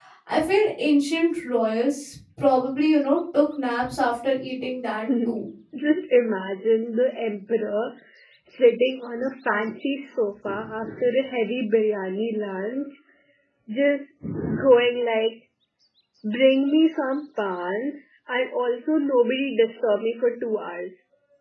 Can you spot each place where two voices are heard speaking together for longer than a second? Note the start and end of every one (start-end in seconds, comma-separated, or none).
none